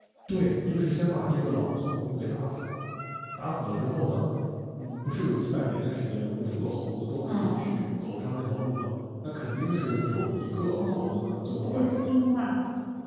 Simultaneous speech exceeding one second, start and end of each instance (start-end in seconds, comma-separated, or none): none